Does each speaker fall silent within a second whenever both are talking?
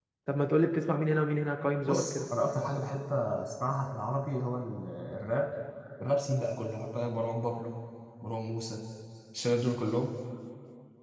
Yes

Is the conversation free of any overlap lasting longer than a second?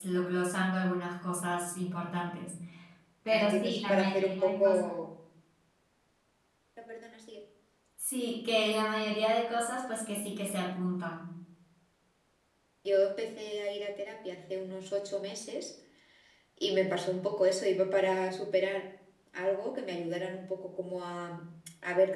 No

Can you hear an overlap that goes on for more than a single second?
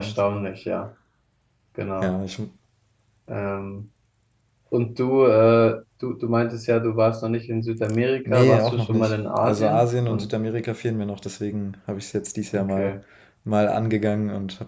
Yes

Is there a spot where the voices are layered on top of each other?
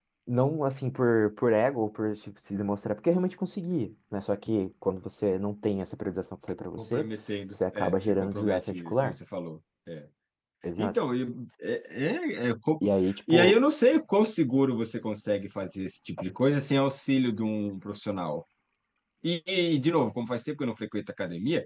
Yes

